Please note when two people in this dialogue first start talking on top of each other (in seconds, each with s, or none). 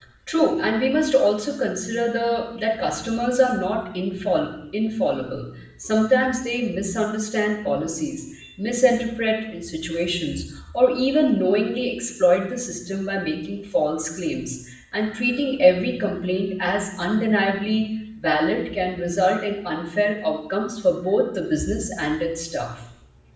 none